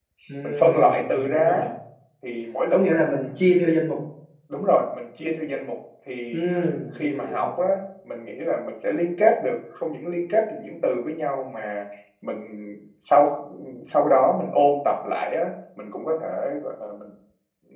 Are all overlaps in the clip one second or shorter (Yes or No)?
No